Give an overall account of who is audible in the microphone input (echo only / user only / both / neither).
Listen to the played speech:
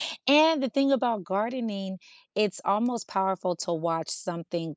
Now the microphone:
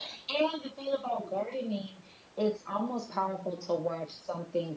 both